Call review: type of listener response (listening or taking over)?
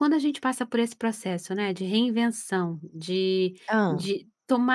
listening